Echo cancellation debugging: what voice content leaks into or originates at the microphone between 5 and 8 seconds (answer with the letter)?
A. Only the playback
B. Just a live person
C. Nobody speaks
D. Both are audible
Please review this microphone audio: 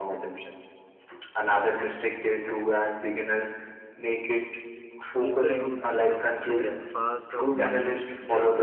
D